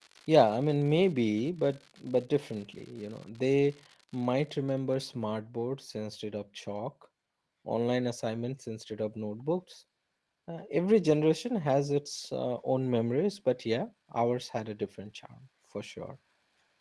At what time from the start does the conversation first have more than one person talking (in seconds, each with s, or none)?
none